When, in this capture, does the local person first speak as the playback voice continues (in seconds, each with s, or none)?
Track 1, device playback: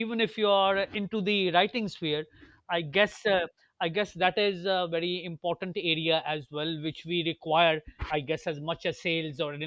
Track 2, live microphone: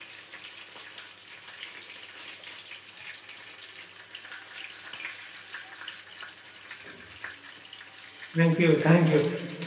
8.4 s